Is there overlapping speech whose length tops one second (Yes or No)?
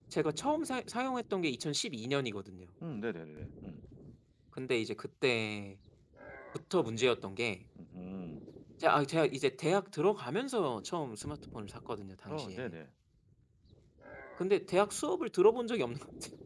No